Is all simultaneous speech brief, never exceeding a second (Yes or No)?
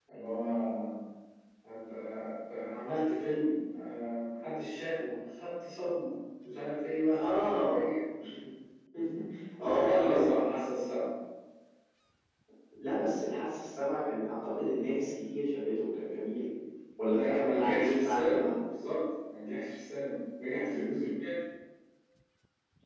No